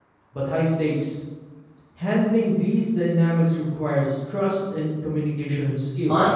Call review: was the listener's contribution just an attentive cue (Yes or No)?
No